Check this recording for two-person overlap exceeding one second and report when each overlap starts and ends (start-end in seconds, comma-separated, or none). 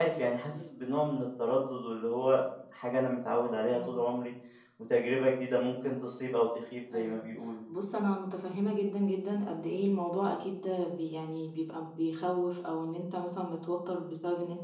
none